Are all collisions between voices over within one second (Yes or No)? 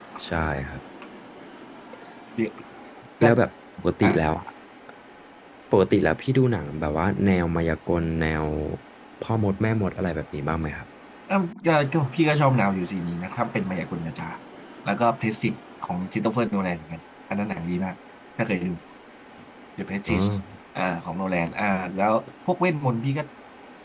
Yes